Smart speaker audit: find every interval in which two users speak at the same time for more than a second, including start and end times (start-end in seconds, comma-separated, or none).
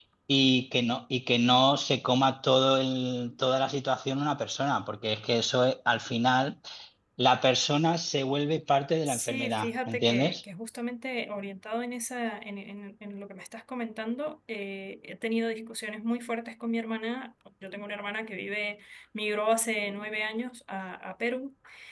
9.1-10.4